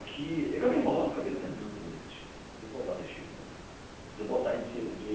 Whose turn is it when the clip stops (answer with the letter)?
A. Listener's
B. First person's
A